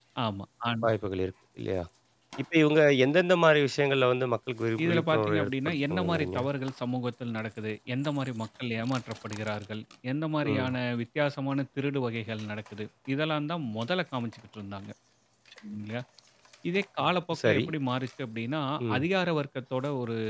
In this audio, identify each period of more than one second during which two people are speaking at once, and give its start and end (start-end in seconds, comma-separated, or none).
4.8-6.4